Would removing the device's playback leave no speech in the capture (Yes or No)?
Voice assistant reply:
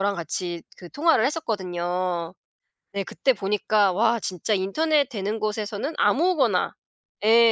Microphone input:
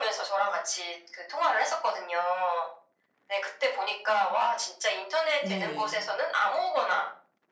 No